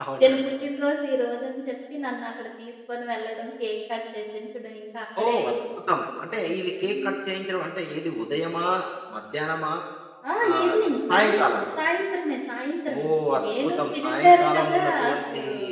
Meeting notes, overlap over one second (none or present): present